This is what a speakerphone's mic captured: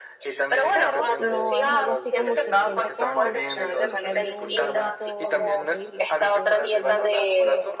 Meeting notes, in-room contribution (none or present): present